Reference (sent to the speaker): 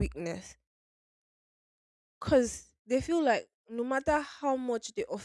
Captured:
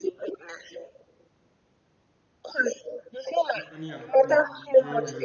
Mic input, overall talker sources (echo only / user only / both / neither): both